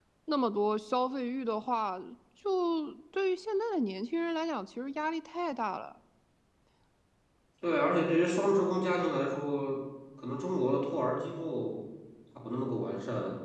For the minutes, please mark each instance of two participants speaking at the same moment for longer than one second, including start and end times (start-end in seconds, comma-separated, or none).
none